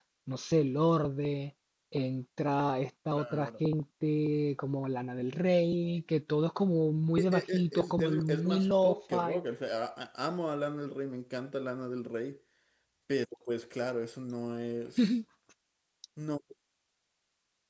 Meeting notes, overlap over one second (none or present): present